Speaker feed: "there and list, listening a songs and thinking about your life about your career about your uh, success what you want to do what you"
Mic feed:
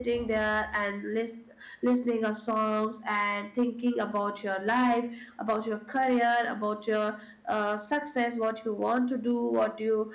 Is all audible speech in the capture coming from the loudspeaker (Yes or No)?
Yes